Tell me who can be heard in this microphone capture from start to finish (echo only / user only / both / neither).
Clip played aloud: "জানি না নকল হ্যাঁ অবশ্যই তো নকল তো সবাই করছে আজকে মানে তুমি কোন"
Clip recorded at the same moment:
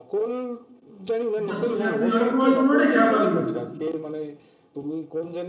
both